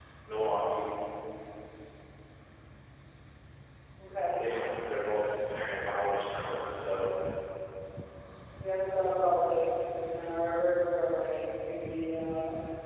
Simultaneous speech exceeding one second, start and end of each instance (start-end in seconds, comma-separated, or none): none